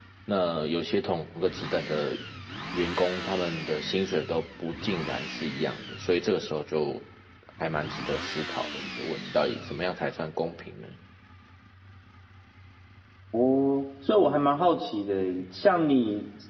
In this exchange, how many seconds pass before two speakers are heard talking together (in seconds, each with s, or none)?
none